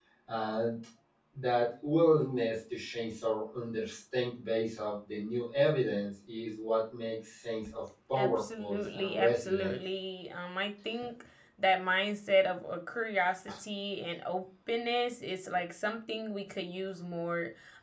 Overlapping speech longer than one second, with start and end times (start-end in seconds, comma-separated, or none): 8.2-9.7